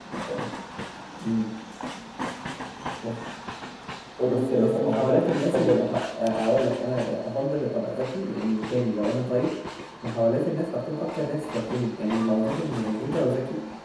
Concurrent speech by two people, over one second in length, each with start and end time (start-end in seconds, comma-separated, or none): 4.3-5.9